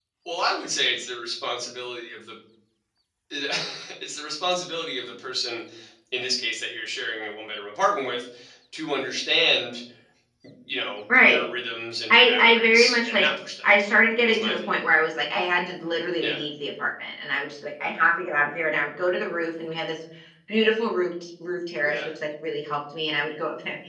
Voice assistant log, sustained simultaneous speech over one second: present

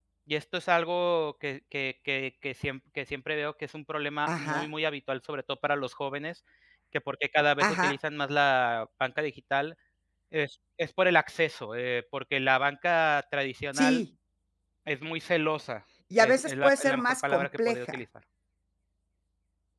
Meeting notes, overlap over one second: present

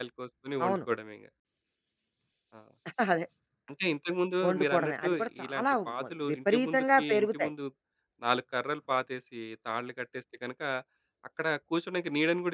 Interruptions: present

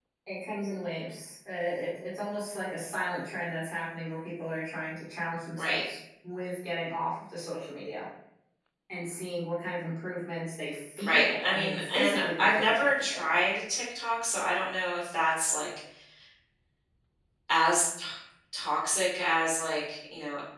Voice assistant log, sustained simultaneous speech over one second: present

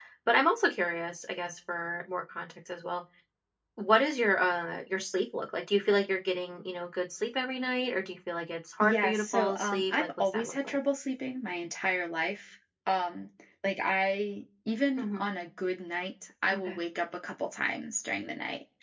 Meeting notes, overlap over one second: present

